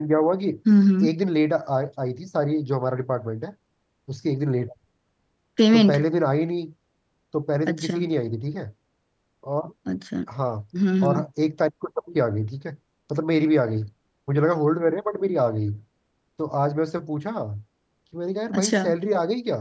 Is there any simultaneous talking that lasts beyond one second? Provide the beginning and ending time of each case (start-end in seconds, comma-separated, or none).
none